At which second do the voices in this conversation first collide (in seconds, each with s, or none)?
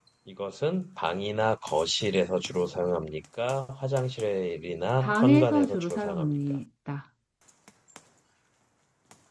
5.0 s